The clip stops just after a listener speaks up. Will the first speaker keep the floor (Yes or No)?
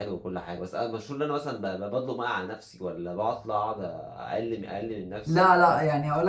No